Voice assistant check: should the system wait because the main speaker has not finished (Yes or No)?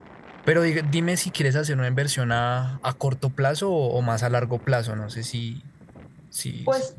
No